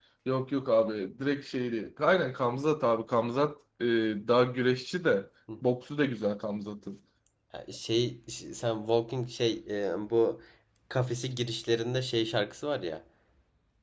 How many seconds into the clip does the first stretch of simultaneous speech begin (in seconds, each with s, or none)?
none